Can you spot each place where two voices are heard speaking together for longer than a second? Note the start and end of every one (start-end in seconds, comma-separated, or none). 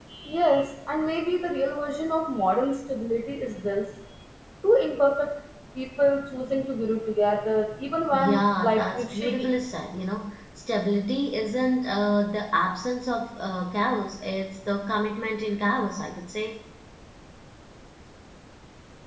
8.1-9.5